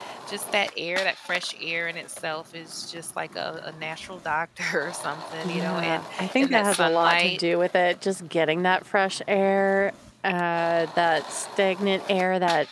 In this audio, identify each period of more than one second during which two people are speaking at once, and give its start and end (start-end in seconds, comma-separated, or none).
5.4-7.4